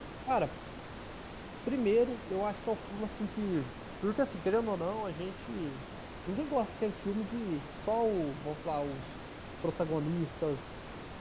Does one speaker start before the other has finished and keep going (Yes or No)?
No